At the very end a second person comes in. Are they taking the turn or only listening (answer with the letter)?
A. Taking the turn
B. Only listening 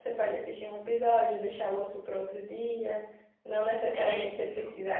B